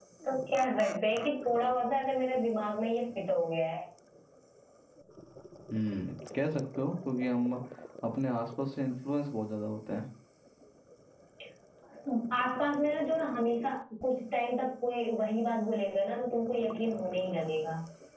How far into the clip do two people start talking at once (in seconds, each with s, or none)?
none